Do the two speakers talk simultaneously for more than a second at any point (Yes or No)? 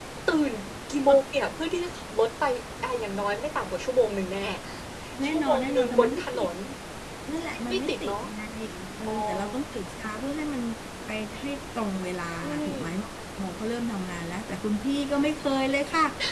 Yes